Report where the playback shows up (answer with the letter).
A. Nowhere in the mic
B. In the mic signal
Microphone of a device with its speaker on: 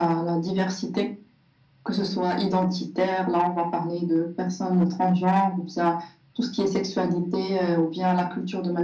B